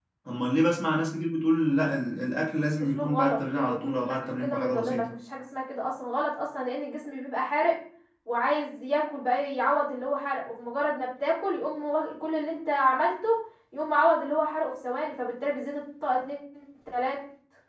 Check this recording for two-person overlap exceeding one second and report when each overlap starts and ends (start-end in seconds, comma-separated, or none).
2.9-5.0